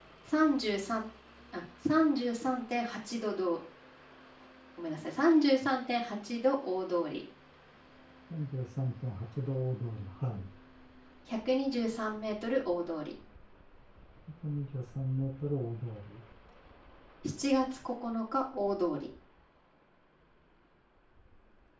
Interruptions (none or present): none